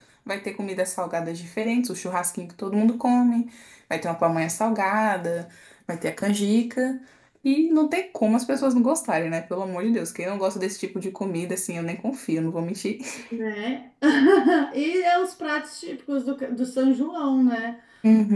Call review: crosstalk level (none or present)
none